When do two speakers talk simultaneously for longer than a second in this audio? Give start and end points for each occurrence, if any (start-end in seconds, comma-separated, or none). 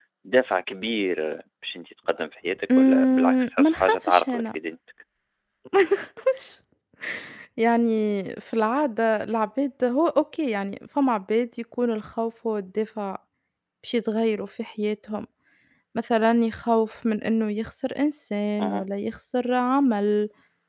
2.7-4.5